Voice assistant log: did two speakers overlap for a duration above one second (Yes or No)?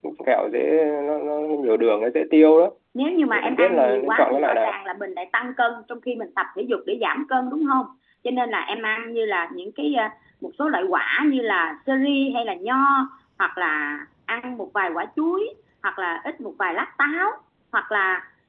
Yes